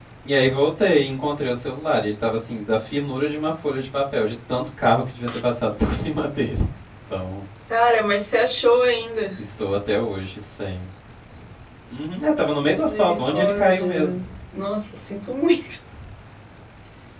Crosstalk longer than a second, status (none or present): present